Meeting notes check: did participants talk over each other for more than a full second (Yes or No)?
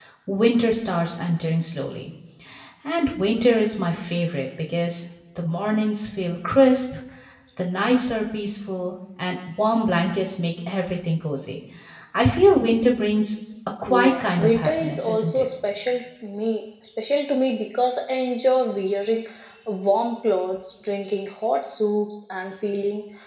Yes